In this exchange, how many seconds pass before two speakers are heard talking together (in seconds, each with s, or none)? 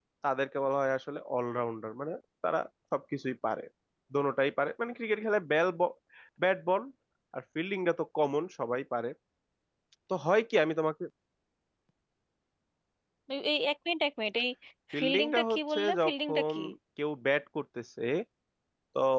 15.0 s